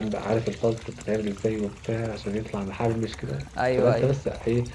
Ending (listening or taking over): listening